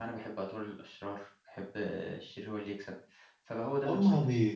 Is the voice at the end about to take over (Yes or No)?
Yes